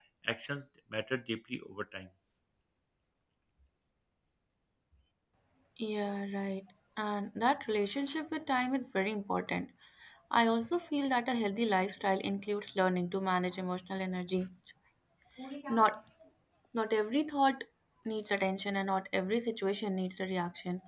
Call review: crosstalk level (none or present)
none